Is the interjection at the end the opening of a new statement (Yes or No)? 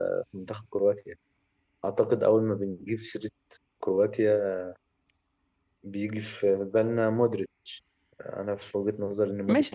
Yes